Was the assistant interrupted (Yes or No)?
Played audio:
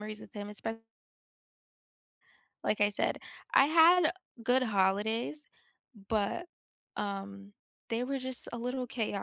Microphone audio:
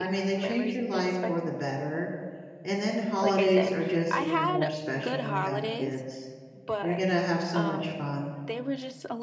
Yes